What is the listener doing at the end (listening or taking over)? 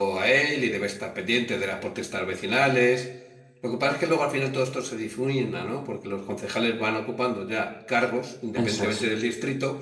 listening